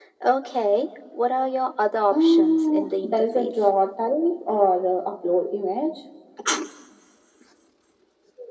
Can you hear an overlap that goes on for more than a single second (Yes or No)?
Yes